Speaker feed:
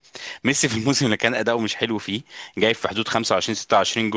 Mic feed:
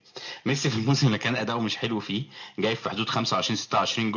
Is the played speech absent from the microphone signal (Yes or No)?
No